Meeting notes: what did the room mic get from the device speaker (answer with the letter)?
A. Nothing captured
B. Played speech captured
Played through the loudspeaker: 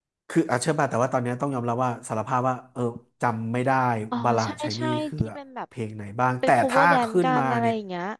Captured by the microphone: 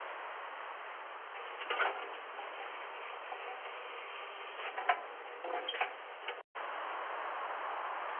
A